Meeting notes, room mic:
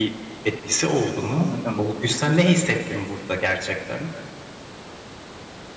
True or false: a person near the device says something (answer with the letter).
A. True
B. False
A